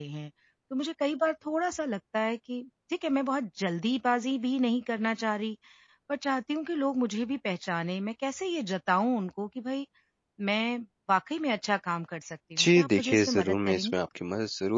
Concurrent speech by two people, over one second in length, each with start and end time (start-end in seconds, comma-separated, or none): 12.6-14.0